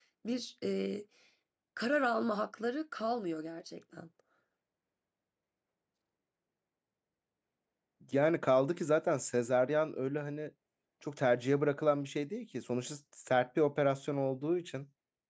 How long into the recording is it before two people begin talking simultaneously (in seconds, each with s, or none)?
none